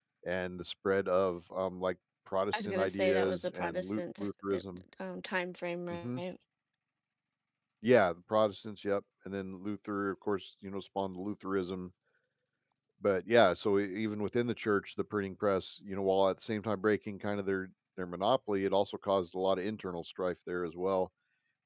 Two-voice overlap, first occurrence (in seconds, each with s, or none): 2.5 s